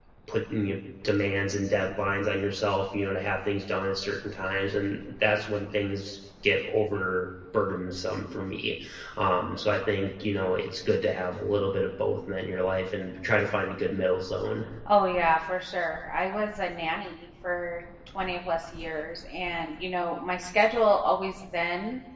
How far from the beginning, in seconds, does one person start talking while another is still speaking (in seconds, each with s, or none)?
none